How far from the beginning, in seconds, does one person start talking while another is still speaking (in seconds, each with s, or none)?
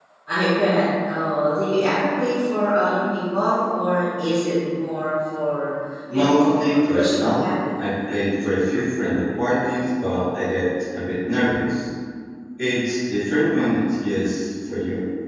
6.1 s